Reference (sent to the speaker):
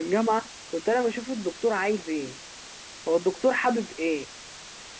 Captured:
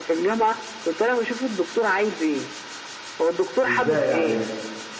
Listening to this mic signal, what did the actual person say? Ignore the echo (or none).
إزاي يعني لسه